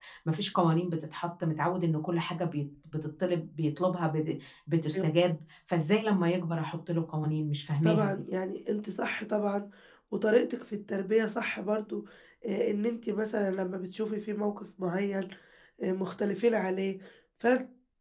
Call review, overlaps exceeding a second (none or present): none